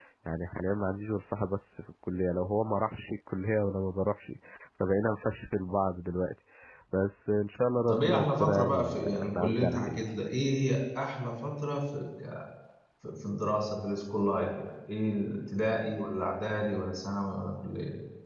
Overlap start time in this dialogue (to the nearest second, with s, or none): 8 s